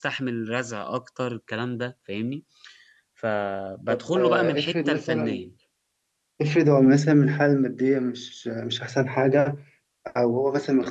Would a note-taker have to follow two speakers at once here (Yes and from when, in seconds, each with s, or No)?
Yes, from 3.9 s